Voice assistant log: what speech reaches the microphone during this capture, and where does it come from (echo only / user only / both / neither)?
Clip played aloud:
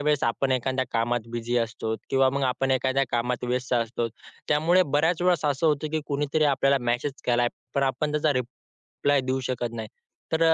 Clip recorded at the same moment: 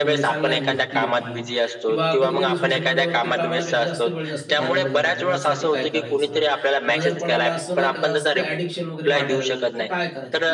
both